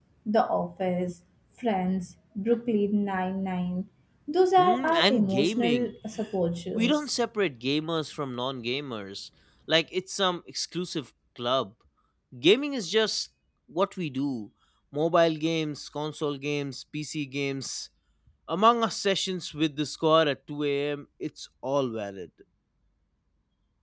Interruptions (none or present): present